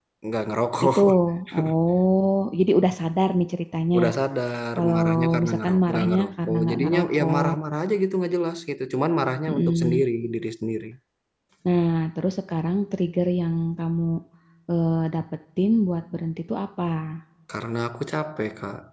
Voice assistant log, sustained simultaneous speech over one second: present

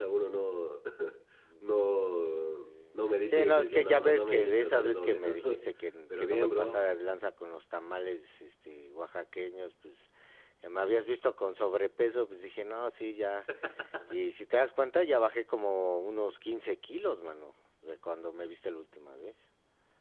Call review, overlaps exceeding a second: present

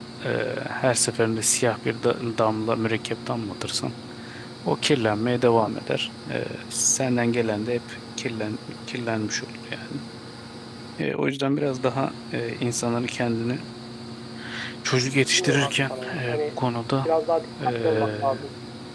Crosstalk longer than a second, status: present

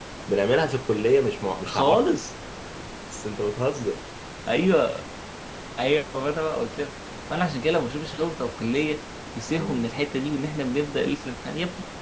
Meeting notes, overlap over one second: none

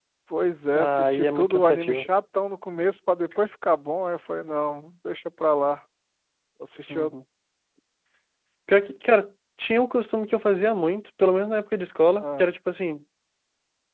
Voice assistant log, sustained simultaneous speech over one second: present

